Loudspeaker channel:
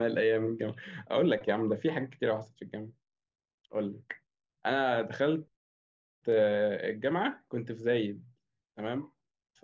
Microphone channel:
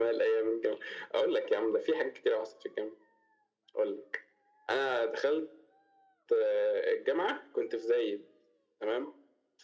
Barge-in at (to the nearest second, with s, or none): none